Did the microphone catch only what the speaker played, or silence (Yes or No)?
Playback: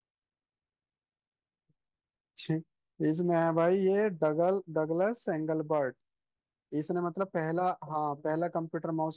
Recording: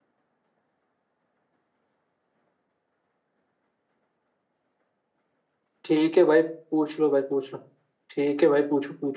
No